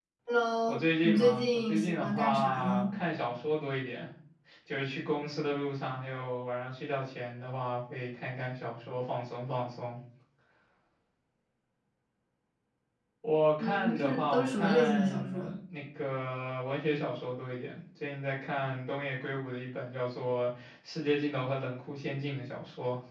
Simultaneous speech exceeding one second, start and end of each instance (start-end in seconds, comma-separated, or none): 0.7-2.9, 13.6-15.5